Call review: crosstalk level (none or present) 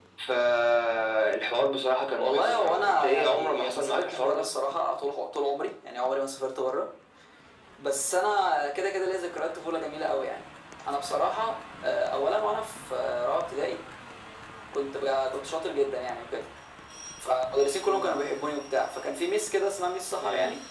present